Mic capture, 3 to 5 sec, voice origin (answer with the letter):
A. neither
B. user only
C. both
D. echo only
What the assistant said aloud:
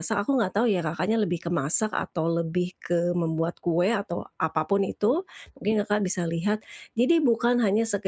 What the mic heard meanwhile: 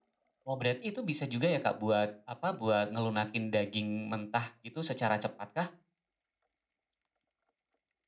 B